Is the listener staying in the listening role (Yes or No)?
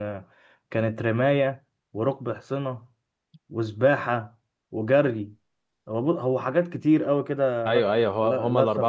No